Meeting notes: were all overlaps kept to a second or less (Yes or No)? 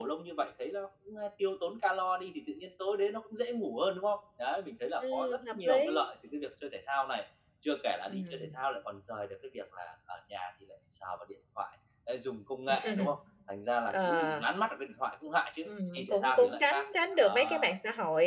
No